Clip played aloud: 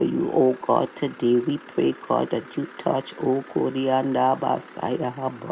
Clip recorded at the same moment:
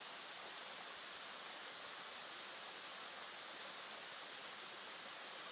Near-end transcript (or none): none